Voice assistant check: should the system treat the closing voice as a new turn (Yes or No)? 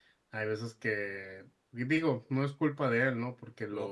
No